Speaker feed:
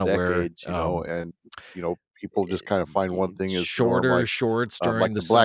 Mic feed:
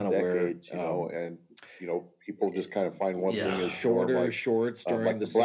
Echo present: Yes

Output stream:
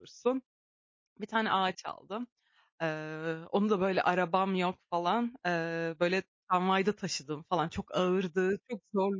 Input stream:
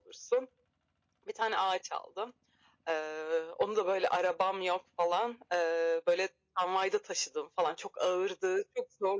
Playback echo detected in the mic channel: Yes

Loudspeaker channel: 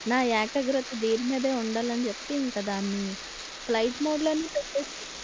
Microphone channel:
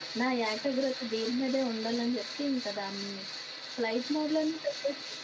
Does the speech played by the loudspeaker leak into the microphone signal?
Yes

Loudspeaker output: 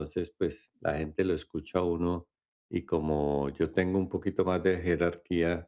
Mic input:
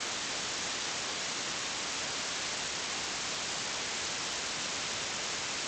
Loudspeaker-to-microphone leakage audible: No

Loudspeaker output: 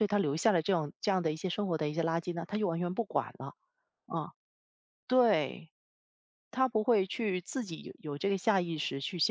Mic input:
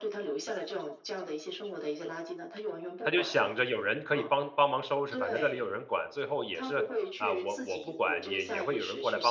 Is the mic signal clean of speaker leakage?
No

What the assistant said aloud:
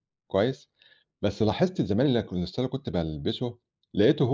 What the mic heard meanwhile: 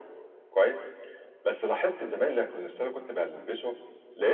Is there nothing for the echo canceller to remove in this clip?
No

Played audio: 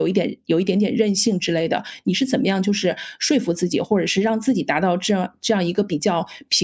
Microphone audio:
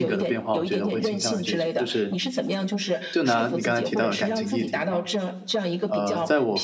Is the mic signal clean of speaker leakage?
No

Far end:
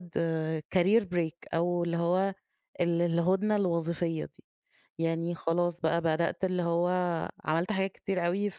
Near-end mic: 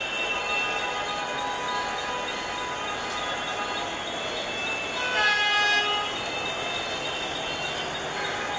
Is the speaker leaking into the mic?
No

